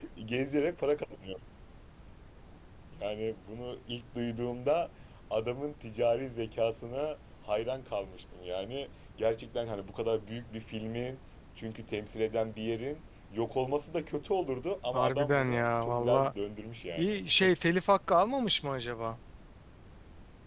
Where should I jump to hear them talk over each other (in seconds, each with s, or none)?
14.9 s